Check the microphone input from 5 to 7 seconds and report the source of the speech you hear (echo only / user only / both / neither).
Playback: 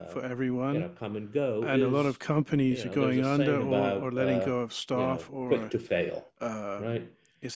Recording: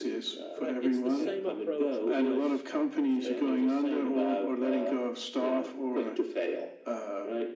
echo only